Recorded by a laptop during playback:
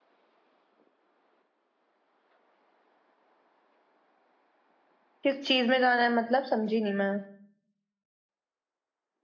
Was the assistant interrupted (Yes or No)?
Yes